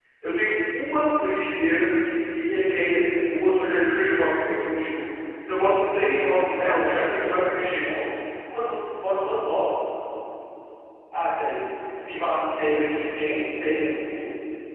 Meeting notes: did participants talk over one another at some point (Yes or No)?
Yes